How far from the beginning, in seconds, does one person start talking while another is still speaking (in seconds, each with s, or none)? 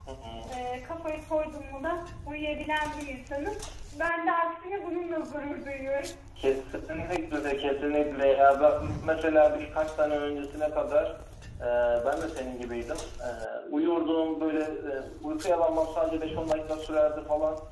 none